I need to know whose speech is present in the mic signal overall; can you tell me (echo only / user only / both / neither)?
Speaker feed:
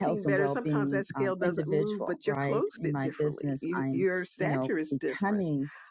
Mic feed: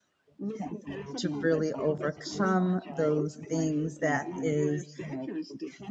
both